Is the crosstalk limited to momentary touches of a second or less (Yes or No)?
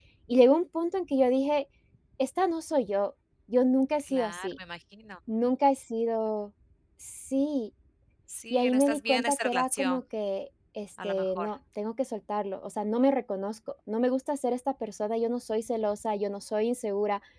No